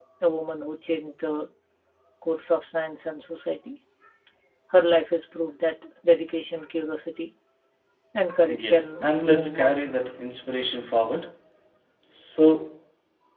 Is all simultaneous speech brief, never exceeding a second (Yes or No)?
No